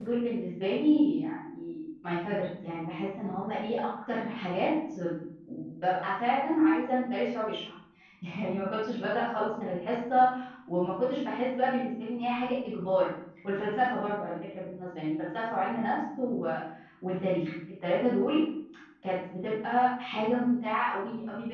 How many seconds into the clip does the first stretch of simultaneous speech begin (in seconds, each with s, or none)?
none